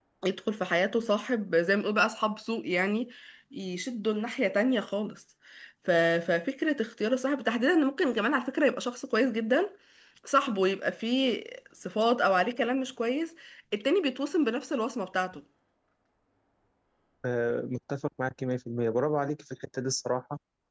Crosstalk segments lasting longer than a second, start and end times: none

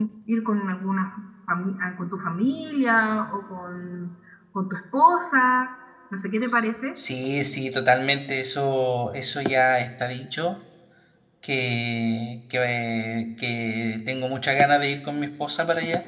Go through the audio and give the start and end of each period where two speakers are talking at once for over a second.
none

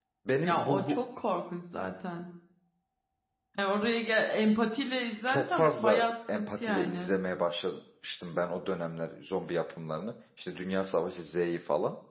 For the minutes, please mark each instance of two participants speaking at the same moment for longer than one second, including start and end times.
5.3-7.2

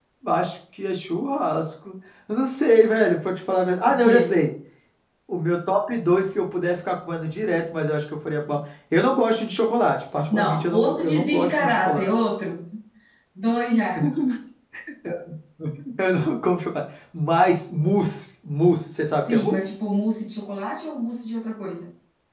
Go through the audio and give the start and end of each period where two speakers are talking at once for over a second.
10.3-12.1

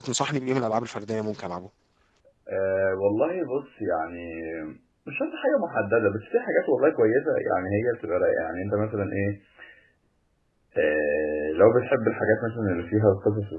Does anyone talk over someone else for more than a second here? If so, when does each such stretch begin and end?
none

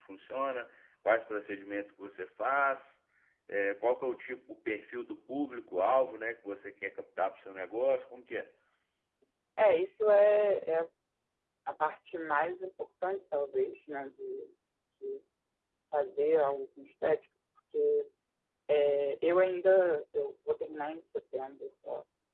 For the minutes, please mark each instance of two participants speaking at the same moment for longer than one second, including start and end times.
none

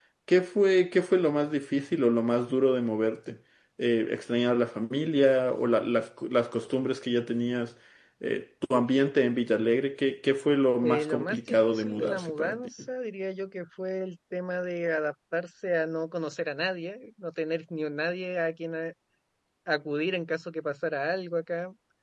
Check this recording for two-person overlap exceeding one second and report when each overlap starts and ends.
10.8-12.6

